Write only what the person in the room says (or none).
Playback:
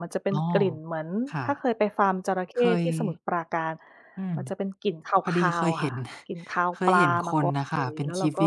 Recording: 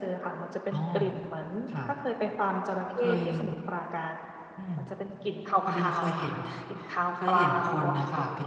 none